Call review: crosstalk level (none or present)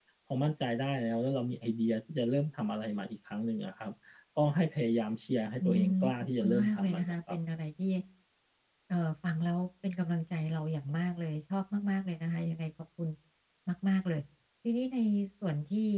present